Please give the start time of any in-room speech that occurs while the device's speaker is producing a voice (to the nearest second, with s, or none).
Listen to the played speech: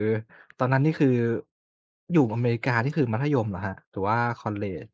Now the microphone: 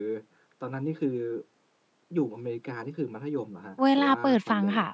4 s